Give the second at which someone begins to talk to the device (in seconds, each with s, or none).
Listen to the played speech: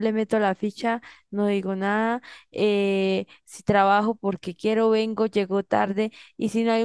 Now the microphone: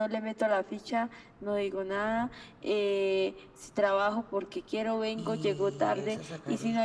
5.1 s